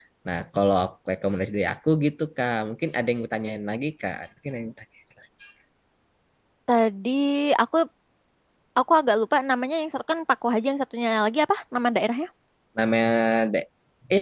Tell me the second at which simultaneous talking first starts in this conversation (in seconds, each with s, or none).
none